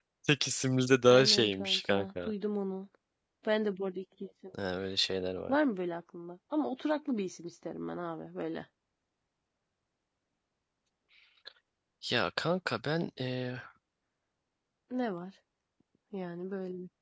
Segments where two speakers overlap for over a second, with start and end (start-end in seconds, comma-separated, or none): 1.1-2.3